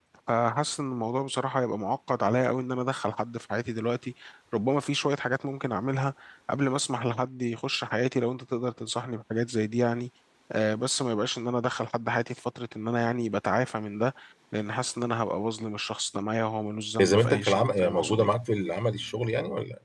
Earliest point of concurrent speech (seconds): 17.0 s

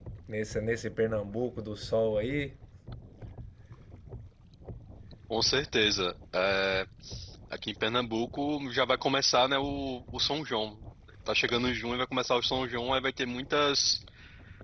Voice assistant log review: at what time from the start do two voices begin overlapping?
none

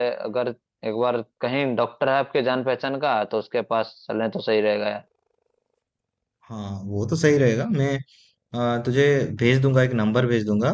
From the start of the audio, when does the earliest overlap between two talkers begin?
none

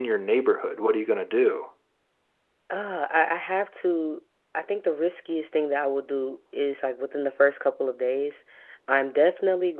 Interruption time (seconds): none

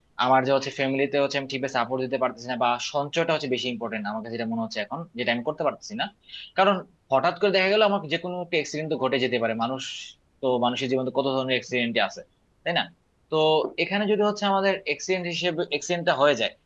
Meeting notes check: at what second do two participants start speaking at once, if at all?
none

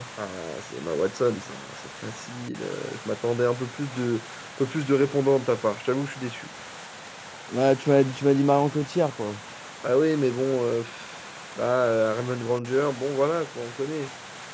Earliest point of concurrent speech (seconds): none

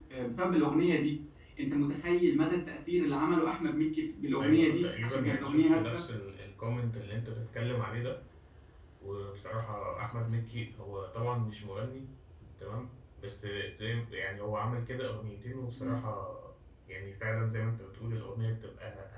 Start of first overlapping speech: 4.4 s

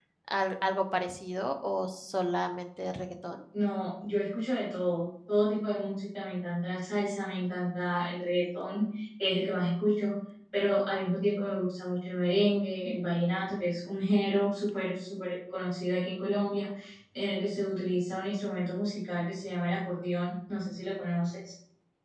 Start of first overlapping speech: none

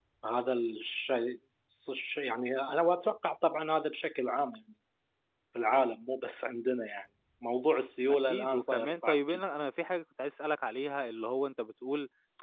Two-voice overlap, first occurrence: 8.1 s

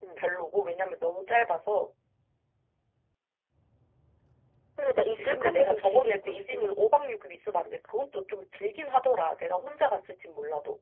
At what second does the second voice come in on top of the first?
5.0 s

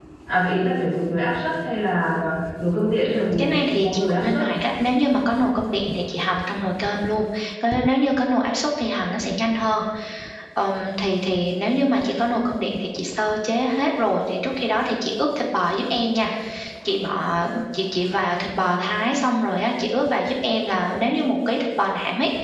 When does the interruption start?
3.0 s

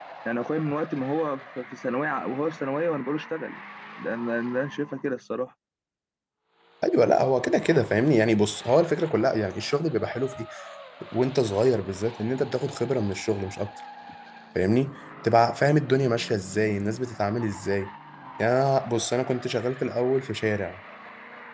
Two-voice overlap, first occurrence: none

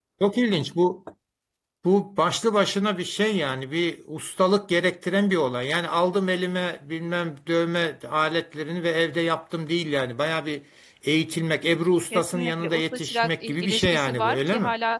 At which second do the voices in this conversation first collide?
12.1 s

